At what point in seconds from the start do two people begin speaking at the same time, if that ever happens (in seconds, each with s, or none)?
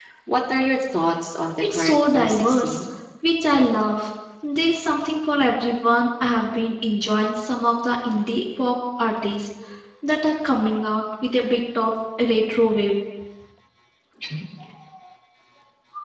1.6 s